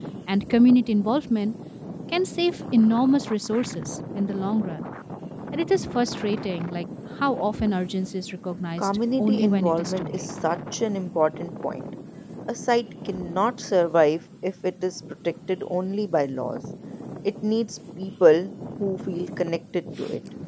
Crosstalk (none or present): present